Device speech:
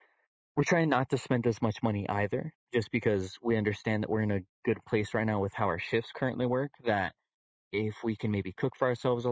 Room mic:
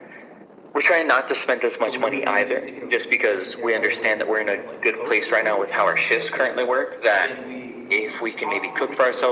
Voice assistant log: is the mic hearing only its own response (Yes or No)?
No